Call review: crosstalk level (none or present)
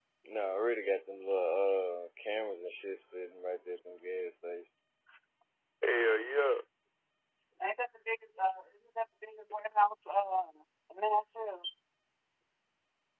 none